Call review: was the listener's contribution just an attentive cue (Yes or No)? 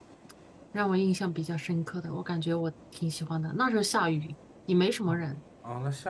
No